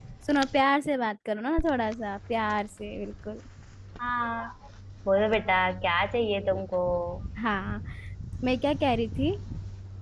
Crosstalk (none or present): none